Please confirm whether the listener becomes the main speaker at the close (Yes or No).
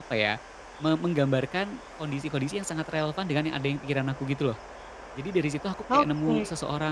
No